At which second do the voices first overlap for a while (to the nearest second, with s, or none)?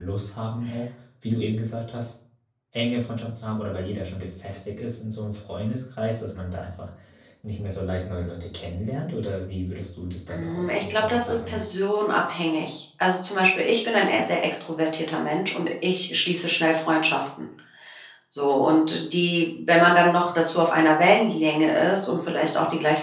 10 s